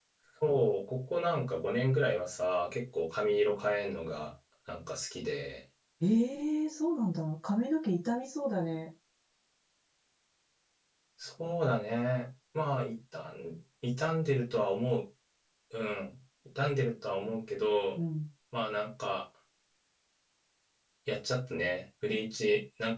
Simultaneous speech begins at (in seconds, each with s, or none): none